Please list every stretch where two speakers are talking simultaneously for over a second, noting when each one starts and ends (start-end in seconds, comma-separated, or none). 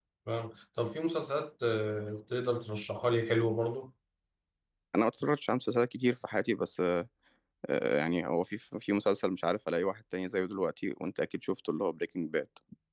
none